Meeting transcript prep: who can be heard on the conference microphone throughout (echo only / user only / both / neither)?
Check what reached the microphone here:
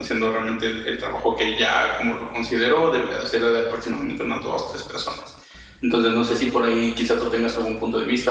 user only